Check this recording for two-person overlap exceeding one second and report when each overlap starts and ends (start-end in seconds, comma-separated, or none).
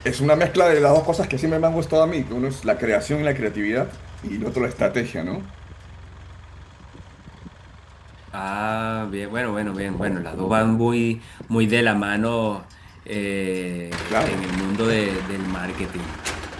none